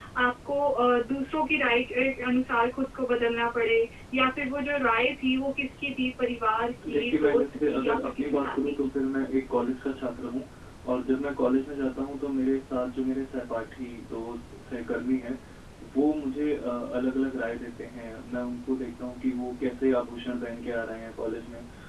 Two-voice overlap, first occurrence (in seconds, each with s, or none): 6.8 s